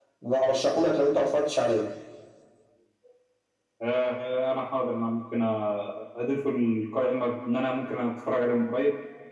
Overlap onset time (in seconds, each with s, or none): none